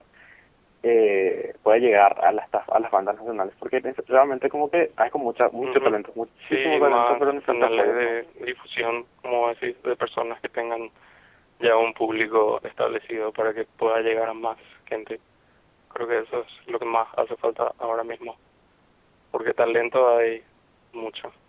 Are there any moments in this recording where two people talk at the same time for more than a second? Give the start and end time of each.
6.5-8.2

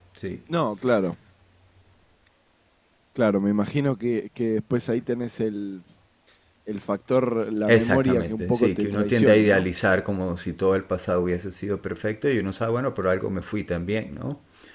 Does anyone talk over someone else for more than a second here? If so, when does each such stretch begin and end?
7.7-9.6

